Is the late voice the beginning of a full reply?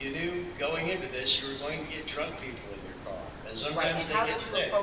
Yes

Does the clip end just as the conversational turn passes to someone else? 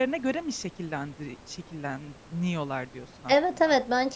Yes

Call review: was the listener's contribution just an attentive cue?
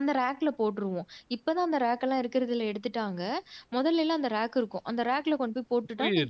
No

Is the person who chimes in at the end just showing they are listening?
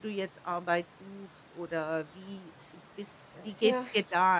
Yes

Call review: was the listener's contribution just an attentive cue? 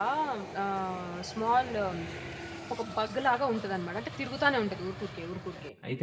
No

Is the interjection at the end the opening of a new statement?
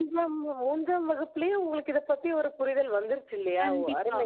Yes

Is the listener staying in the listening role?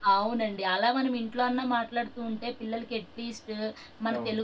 Yes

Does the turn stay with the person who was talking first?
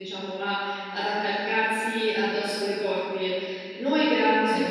Yes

